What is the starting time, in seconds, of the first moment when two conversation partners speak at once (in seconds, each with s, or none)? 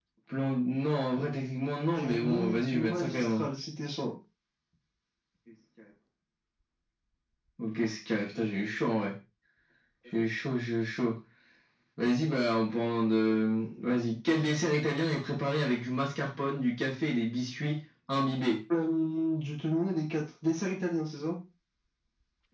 1.9 s